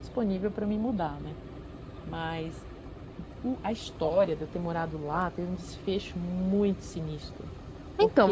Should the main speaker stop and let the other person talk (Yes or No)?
Yes